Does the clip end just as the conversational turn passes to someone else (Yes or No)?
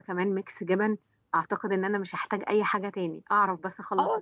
Yes